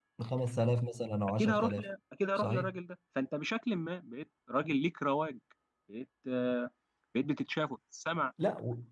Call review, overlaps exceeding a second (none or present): none